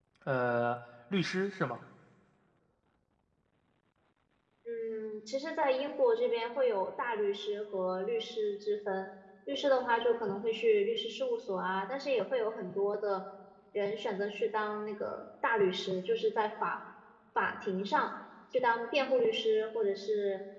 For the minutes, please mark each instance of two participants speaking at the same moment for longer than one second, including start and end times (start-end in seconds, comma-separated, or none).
none